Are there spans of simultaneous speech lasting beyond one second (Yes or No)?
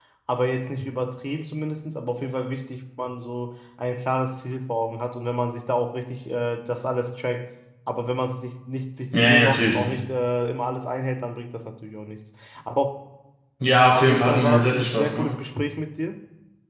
Yes